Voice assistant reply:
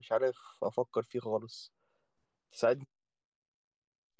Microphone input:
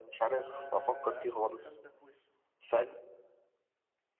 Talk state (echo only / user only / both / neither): both